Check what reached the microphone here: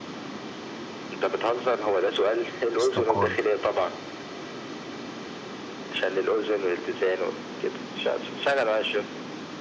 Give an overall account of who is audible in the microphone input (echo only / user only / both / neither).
both